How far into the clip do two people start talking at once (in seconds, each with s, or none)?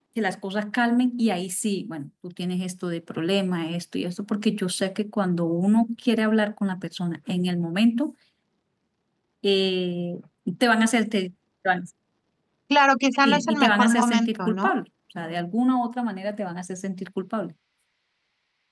13.2 s